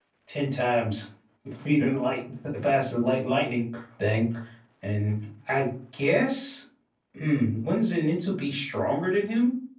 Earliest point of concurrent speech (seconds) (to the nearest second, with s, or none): none